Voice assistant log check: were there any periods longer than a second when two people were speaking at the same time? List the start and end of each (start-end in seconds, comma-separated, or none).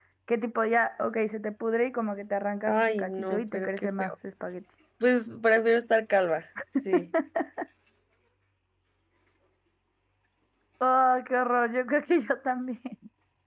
2.7-4.1